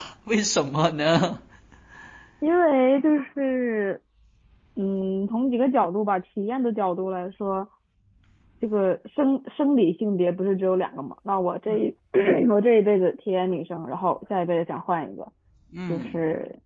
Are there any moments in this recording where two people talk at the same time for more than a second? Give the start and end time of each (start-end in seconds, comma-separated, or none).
none